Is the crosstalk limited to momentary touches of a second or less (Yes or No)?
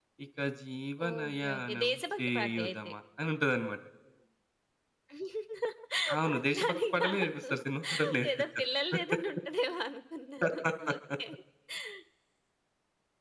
No